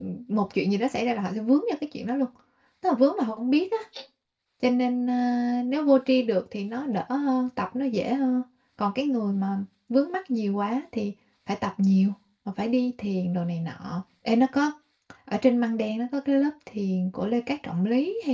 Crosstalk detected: No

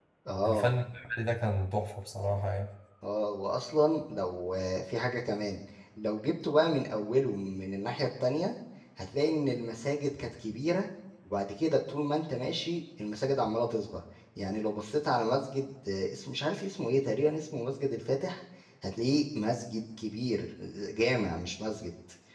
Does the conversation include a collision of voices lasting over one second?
No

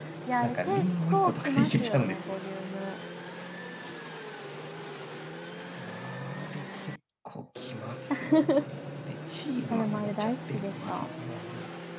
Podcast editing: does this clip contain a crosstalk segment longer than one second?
Yes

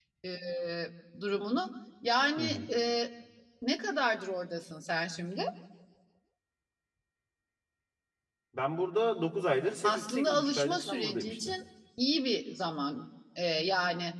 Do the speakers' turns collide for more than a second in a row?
Yes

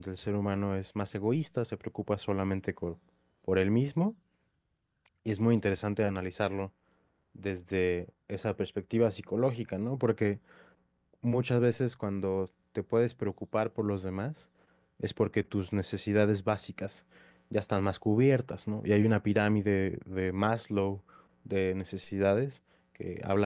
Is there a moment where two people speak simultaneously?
No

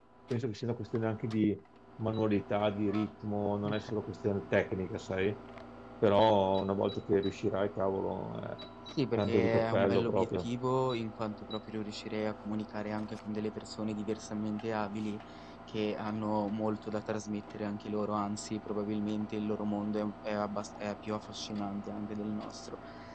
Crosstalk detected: Yes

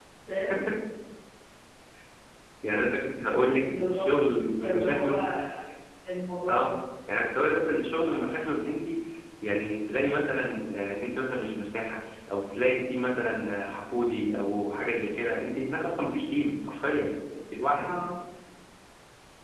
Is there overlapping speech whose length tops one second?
Yes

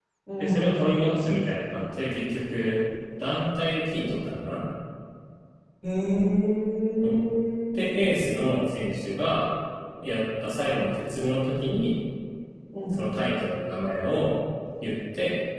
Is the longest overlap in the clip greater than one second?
No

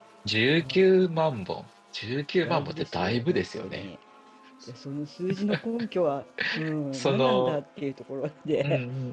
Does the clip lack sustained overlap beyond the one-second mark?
No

